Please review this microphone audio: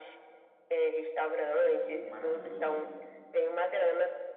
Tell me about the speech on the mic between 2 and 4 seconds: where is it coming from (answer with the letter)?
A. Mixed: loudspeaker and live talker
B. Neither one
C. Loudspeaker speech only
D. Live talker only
A